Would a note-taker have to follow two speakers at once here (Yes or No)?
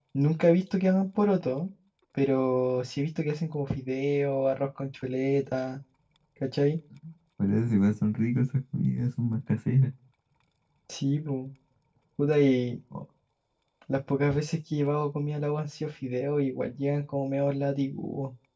No